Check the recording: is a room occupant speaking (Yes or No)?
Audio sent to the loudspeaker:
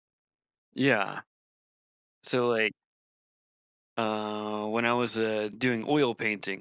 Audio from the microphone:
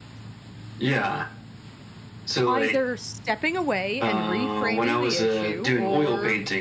Yes